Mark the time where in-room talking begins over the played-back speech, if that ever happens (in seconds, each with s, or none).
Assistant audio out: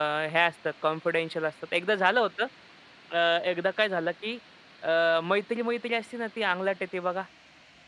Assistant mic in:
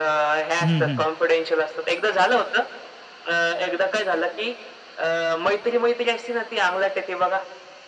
0.6 s